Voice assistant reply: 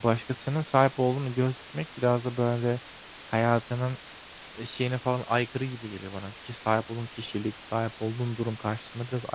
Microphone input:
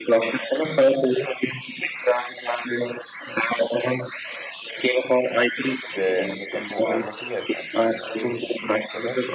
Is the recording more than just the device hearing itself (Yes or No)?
Yes